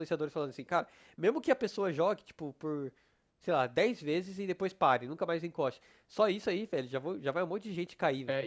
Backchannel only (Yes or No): No